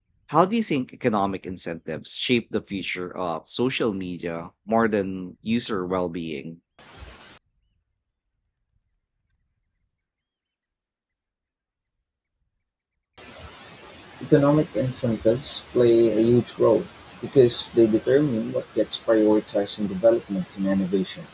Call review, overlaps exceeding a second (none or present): none